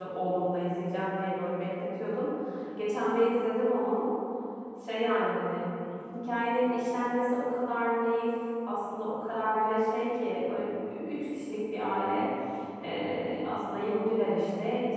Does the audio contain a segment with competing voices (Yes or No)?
No